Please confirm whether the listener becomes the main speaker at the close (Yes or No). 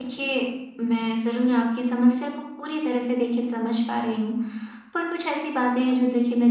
No